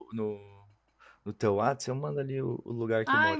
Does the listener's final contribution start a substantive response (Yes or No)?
Yes